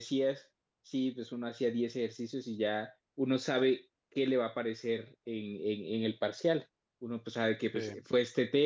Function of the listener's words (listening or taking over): listening